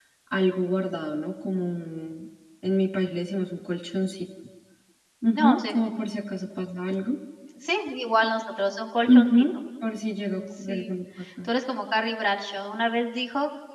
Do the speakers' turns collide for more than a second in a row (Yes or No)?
No